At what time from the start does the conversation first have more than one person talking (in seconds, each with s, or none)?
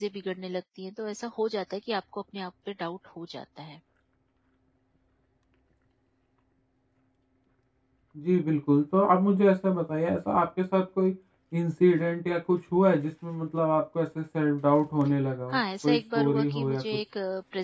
15.5 s